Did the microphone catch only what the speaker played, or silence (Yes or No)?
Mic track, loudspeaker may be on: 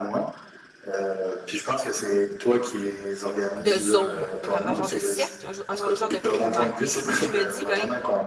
No